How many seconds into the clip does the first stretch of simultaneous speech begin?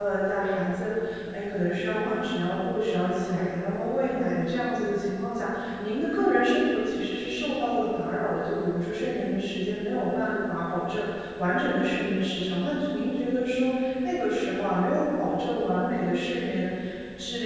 none

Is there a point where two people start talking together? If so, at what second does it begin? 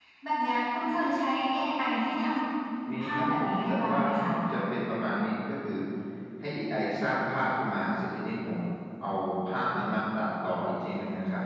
3 s

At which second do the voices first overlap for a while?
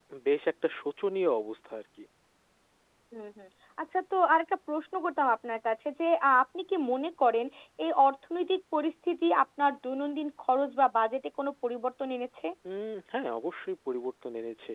none

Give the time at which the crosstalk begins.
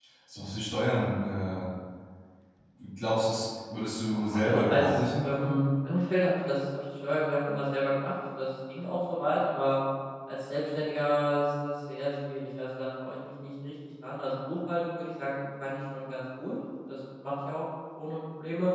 4 s

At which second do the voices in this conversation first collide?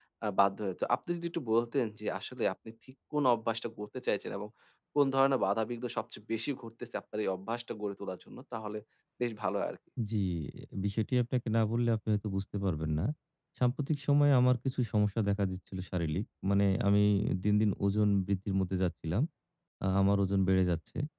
none

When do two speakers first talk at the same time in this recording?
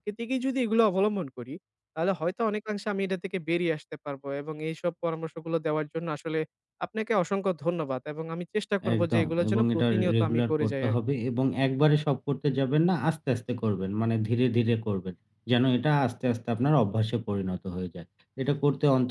9 s

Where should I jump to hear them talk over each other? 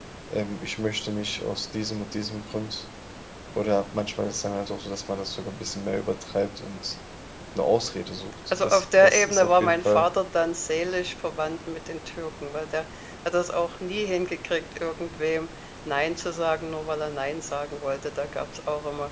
9 s

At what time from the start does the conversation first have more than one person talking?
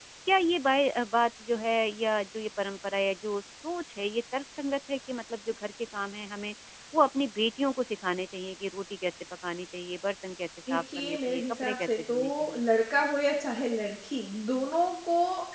11 s

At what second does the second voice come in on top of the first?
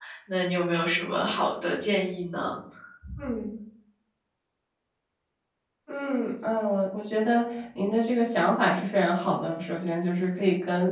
none

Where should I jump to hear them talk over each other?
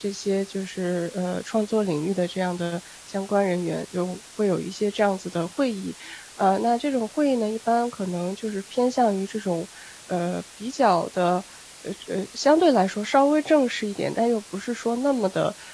none

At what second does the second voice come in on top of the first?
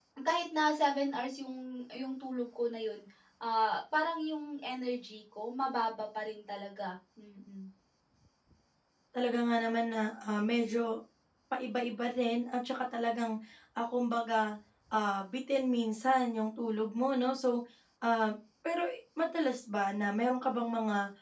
none

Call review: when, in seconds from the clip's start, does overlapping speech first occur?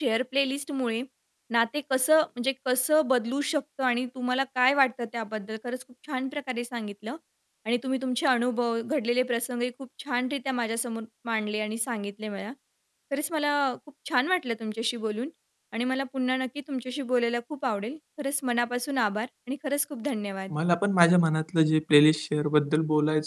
none

